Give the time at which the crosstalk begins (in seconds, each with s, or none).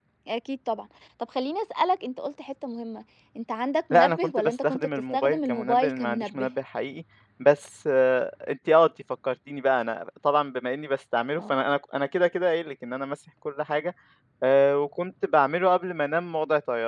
3.9 s